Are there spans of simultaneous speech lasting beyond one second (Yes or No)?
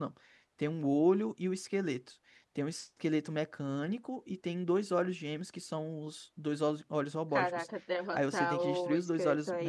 Yes